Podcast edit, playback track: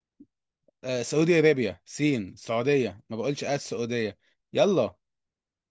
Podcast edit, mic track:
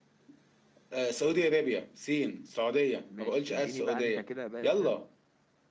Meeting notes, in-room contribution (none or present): present